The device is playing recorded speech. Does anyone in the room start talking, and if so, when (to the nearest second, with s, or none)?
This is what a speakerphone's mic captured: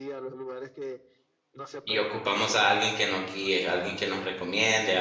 2 s